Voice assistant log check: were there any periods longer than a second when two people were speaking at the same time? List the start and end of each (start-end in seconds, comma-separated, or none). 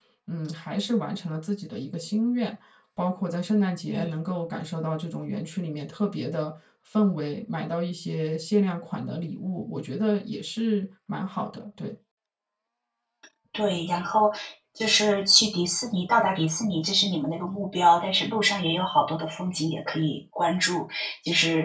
none